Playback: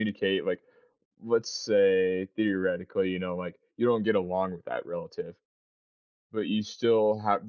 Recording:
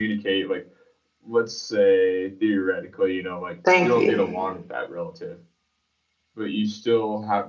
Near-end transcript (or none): Thank you.